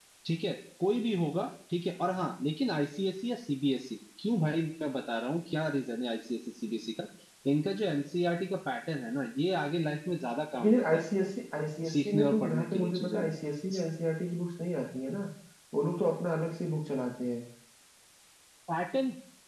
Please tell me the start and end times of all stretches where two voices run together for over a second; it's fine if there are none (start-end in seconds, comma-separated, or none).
11.9-13.3